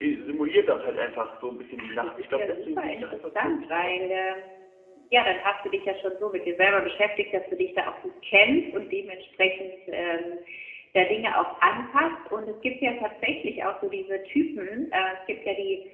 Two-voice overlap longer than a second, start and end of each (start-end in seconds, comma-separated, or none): 1.8-4.0